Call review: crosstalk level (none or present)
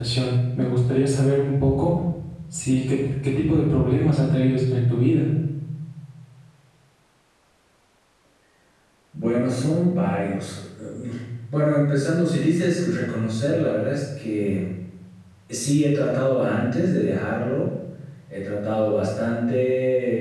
none